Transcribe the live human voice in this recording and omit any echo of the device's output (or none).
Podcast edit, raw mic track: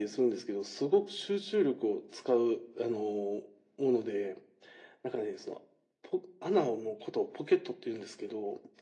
none